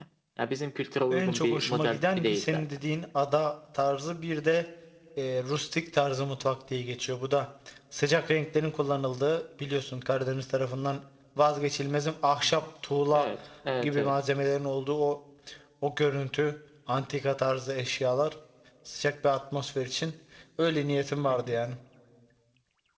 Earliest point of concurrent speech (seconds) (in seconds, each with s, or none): 1.1 s